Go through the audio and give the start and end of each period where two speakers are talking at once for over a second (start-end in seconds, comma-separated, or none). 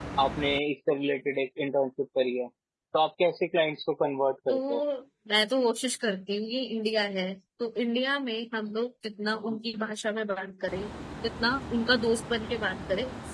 none